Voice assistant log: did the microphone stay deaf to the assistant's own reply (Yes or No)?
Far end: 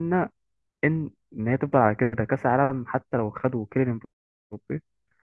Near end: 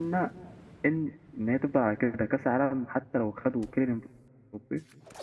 No